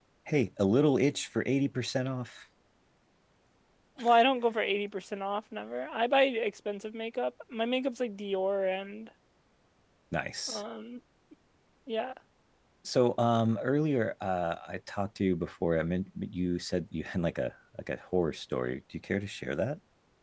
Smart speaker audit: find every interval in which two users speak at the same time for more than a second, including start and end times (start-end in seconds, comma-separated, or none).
none